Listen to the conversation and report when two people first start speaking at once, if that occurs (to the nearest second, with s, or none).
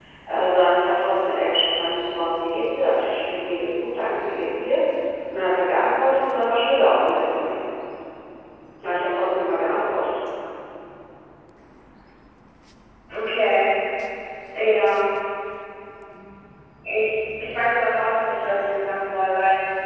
none